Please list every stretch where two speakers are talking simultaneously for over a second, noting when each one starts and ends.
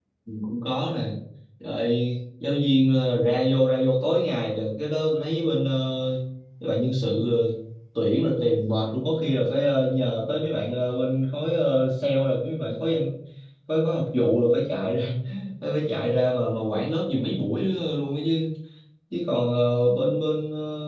none

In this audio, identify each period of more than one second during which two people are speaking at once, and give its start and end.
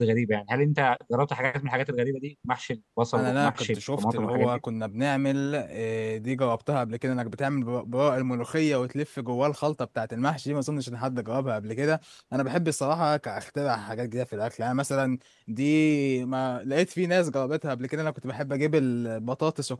3.1-4.6

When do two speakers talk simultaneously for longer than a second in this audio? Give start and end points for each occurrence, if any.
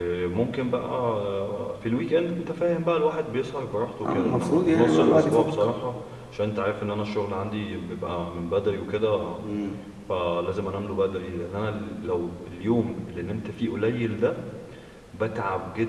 4.0-5.4

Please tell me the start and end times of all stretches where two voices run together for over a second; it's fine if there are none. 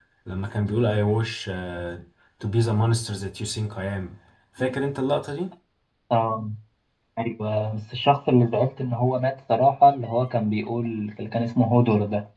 none

